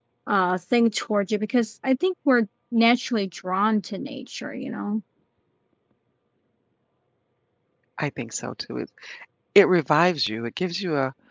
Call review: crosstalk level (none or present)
none